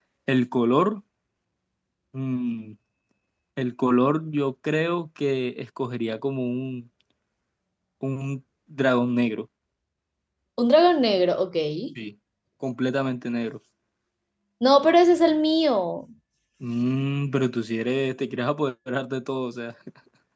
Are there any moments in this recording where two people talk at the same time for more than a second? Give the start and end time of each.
none

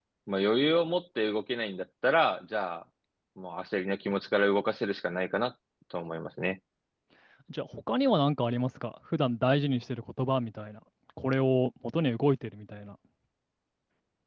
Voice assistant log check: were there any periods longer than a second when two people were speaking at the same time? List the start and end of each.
none

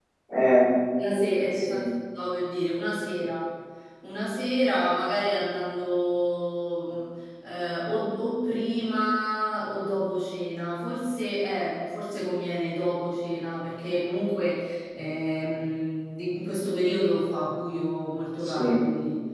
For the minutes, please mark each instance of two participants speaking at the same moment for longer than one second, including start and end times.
none

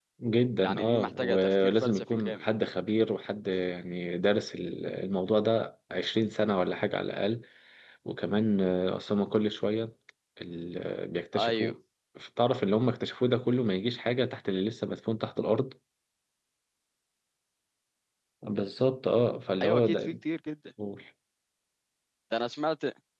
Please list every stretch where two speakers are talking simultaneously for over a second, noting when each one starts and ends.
0.6-2.5

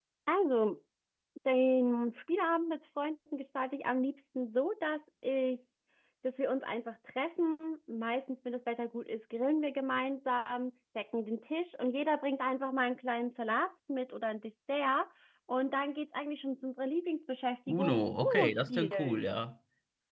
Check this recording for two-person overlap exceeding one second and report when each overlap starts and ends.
17.7-19.3

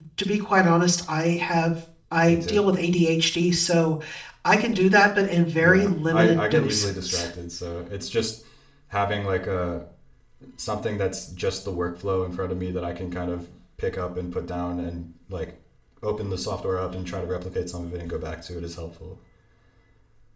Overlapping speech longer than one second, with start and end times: 5.6-7.2

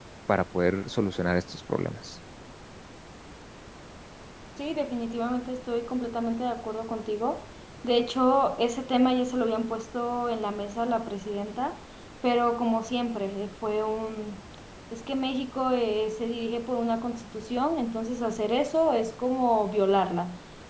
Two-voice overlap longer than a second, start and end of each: none

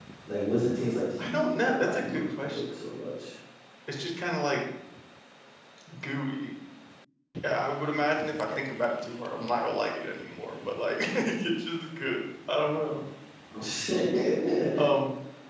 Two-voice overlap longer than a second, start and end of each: 1.2-2.8

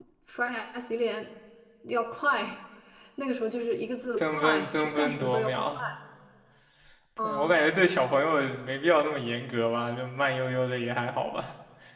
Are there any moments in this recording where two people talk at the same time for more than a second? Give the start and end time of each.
4.2-5.6

